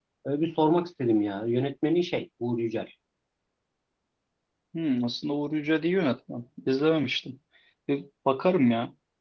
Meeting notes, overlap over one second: none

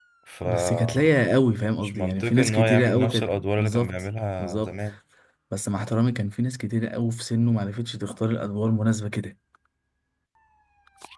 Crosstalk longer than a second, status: present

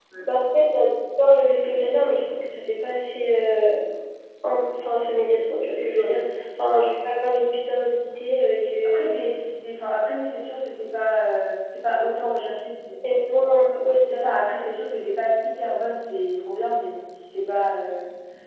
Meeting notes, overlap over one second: none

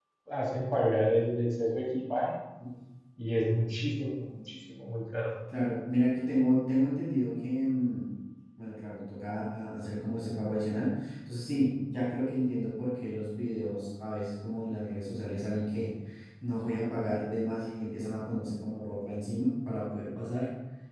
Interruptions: none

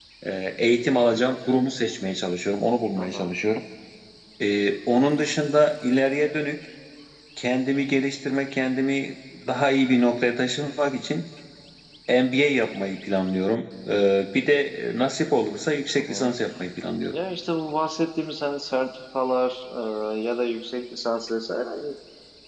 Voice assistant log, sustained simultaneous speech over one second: none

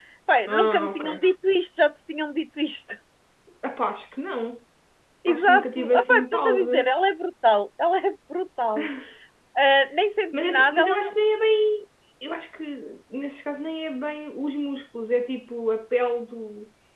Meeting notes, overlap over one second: present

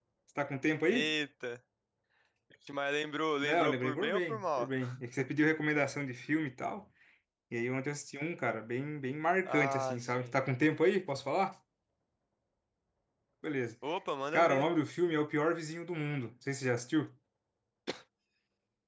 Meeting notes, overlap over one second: present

